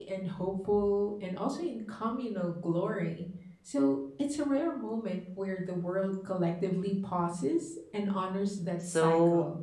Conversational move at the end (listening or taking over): taking over